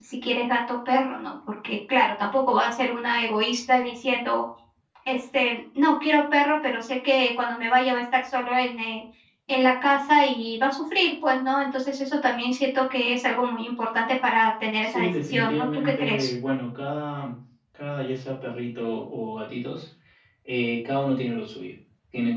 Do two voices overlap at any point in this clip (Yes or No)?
Yes